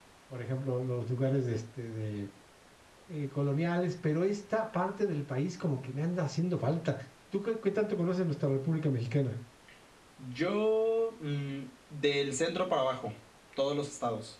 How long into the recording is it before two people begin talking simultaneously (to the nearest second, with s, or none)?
none